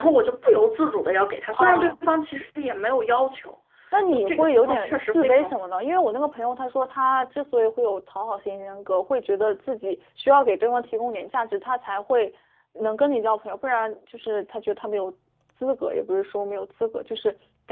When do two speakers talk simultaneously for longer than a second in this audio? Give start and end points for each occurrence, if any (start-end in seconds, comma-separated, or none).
4.1-5.5